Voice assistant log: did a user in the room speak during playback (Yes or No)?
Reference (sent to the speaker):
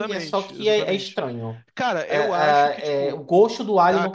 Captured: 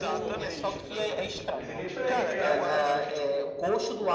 Yes